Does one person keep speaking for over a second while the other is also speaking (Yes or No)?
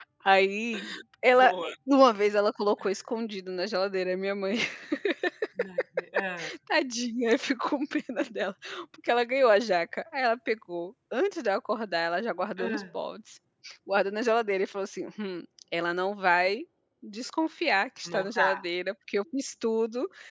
No